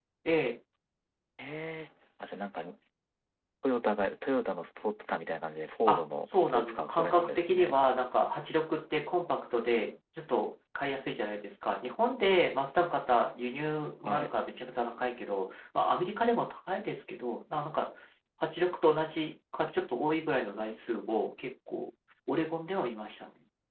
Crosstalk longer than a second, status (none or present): present